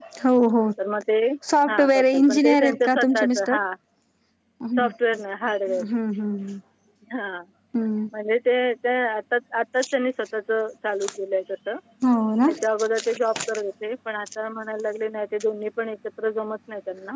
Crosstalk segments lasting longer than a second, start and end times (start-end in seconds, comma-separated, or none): 1.7-3.6